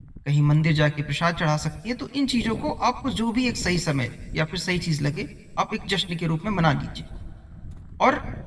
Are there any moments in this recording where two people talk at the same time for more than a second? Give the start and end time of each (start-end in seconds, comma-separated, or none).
none